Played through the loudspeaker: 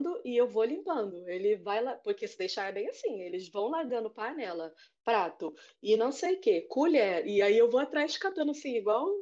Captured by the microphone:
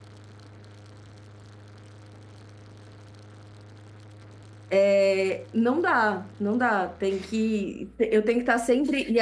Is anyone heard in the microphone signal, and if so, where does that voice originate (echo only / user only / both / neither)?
user only